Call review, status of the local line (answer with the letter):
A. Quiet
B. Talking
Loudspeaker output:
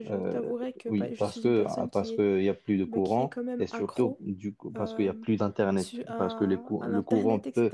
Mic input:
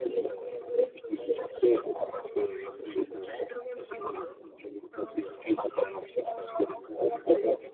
A